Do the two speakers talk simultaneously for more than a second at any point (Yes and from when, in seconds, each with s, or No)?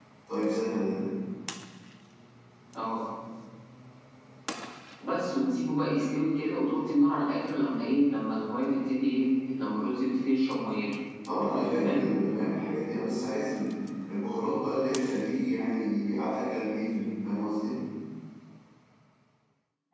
No